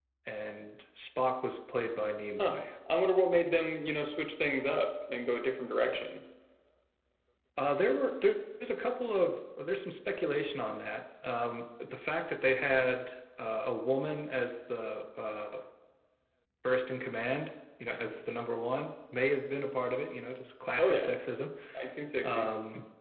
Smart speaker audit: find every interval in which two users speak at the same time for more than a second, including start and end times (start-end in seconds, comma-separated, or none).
none